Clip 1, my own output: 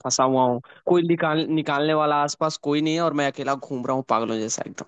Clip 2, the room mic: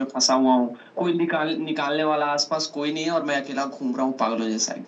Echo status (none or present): present